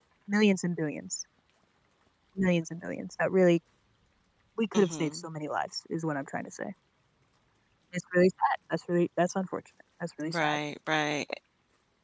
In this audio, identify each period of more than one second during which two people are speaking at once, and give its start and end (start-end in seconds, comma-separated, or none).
none